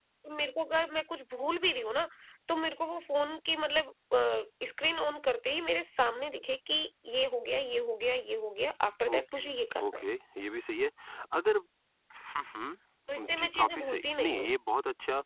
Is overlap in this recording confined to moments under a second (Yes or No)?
No